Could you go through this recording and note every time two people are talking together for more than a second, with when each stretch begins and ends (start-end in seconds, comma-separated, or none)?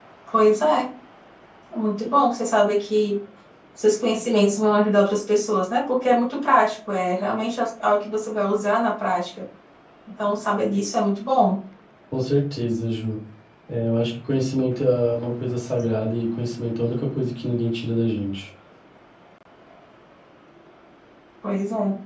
none